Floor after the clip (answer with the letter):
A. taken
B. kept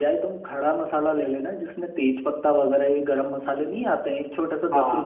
A